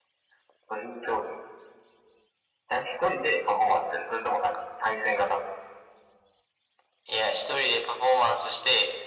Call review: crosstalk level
none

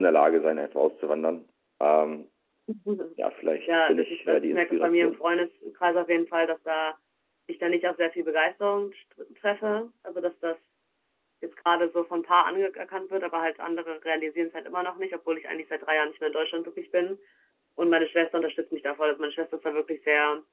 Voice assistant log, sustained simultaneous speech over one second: present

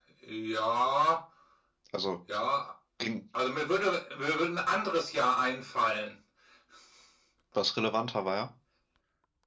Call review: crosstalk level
none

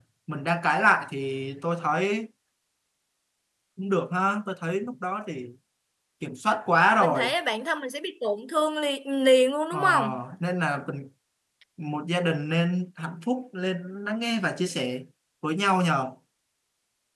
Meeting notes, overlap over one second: none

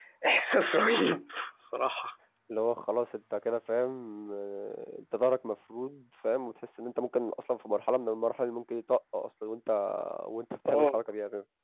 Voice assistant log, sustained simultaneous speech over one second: none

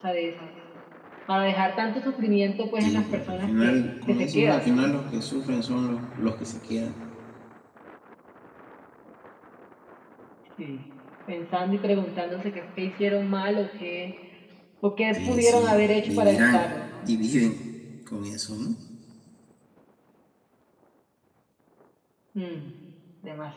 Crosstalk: present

